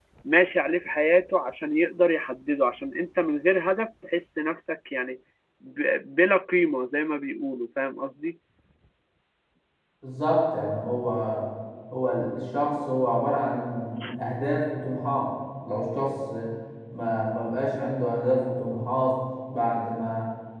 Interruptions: none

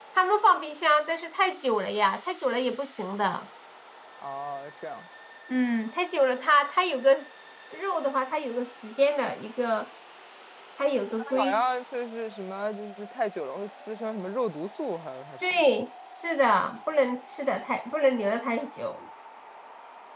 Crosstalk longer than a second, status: none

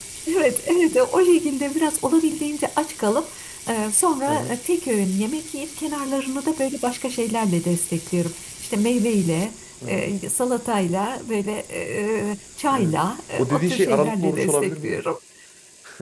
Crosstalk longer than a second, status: present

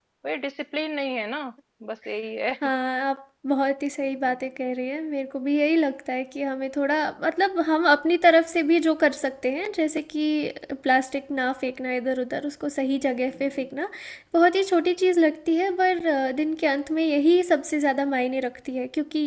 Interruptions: none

